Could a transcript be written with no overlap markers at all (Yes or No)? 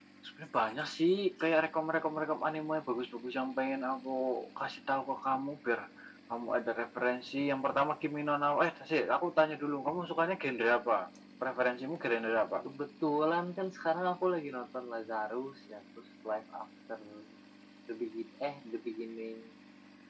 Yes